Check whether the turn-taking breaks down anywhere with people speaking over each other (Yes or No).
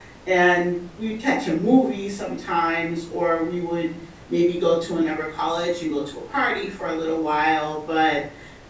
No